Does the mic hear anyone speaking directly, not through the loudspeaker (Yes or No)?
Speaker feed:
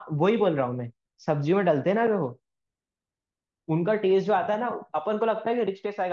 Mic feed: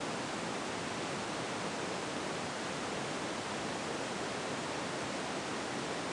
No